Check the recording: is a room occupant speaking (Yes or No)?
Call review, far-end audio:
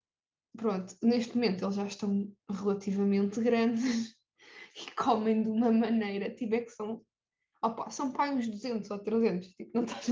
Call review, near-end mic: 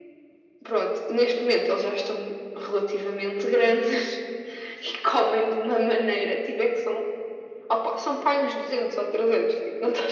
No